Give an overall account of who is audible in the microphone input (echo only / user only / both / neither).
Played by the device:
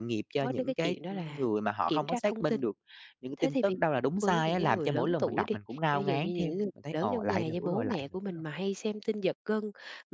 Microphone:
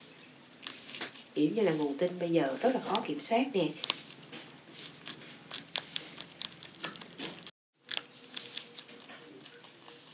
user only